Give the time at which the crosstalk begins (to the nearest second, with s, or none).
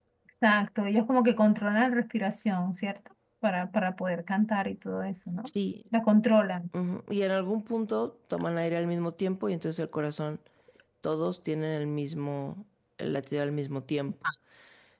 none